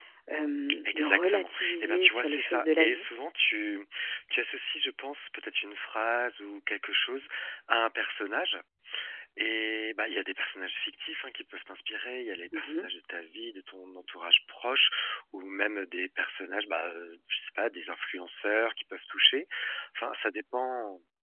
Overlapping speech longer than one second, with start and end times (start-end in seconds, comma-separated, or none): 0.9-3.0